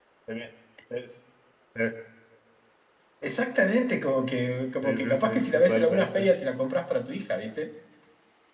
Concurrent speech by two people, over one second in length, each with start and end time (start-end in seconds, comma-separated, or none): 4.8-6.3